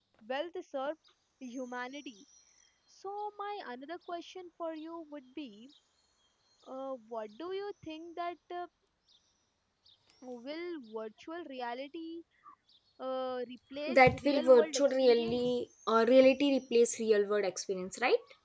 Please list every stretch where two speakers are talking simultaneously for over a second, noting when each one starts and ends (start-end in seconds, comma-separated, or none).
13.9-15.4